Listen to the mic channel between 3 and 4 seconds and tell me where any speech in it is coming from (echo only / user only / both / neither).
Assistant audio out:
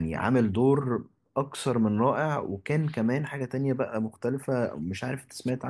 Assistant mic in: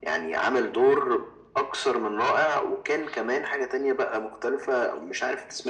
echo only